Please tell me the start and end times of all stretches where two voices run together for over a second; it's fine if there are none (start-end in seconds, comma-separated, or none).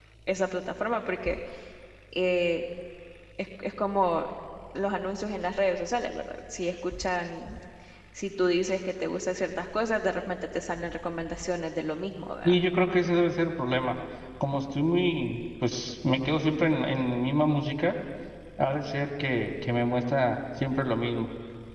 none